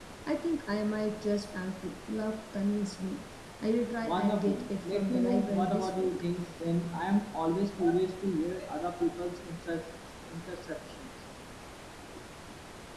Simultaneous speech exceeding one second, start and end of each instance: 4.0-6.1

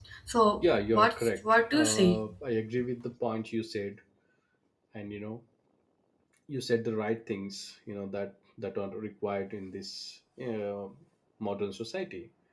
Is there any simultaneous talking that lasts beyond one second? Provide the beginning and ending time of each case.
0.6-2.2

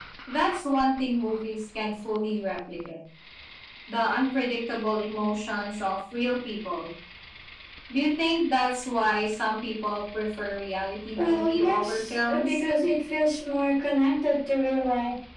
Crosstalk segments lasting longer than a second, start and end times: 11.2-12.6

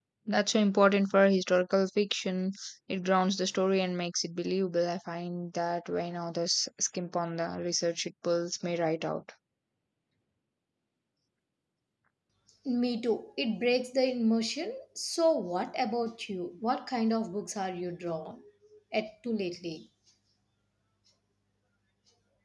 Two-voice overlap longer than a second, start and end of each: none

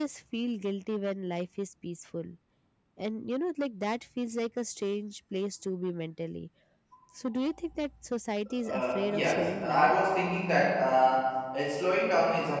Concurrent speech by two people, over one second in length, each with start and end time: 8.6-9.9

